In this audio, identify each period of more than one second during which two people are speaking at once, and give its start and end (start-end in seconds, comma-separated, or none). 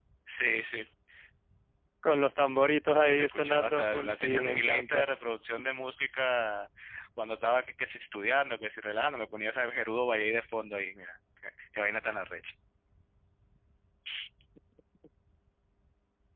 2.9-5.0